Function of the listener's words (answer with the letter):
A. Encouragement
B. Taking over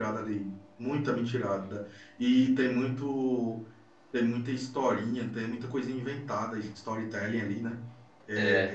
A